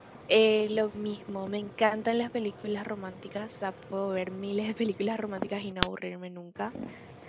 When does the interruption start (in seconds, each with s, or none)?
none